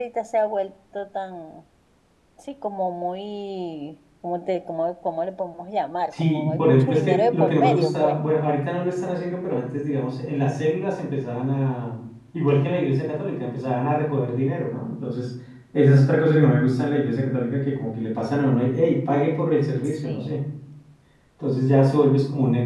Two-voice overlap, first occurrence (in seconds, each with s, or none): 6.2 s